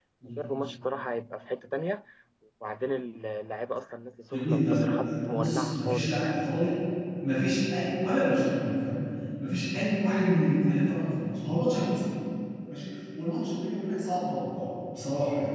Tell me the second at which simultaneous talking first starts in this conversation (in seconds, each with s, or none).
4.3 s